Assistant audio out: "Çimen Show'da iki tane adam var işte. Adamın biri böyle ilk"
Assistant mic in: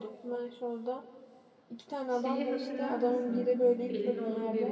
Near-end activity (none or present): present